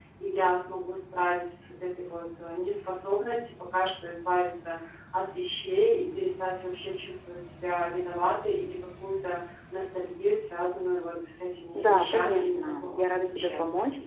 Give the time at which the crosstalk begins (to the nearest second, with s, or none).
12 s